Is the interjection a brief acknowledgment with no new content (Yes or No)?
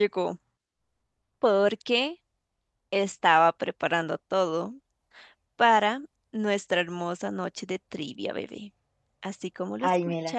No